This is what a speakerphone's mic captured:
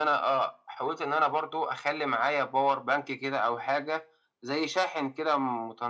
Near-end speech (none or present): none